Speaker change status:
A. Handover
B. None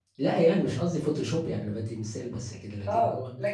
A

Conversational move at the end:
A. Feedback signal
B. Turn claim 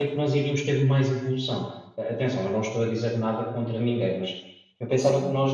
A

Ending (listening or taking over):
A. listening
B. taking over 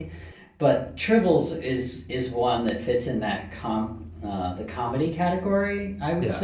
A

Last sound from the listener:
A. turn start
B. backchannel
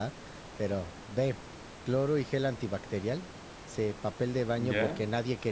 B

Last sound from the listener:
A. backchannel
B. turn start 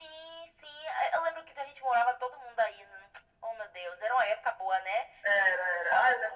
B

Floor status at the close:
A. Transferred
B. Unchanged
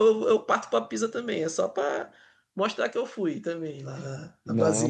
A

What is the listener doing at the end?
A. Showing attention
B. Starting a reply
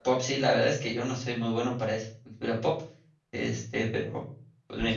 B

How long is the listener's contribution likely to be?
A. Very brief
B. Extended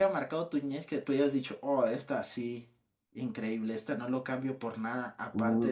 B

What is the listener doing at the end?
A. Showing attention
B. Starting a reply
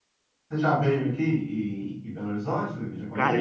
B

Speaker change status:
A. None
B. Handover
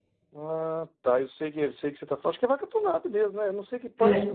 B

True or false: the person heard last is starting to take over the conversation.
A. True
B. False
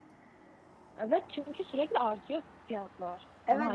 A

